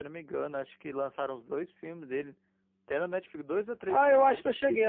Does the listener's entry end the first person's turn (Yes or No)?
Yes